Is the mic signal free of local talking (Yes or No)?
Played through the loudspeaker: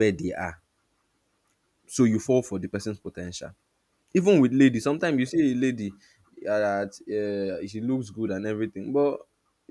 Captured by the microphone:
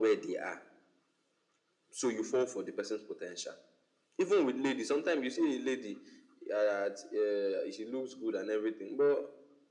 Yes